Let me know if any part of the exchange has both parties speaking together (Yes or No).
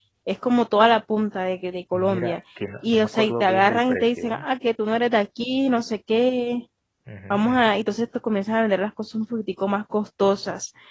Yes